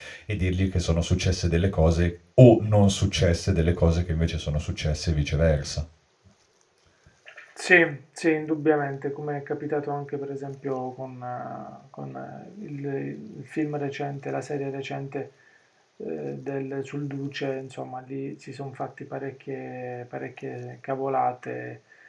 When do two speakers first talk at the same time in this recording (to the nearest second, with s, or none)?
none